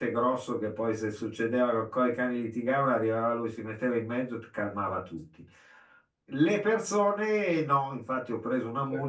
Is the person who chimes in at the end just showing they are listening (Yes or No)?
Yes